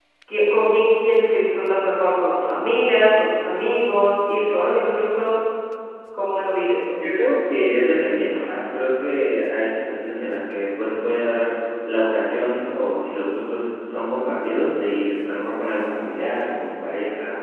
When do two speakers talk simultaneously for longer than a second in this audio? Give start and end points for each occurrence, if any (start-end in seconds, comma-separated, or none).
none